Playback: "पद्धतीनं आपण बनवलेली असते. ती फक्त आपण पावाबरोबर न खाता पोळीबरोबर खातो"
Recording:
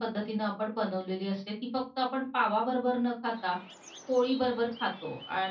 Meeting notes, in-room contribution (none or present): none